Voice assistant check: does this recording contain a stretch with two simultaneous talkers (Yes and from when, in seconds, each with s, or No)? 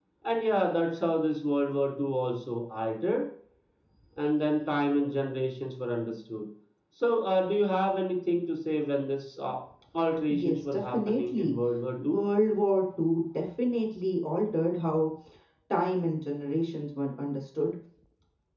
Yes, from 10.3 s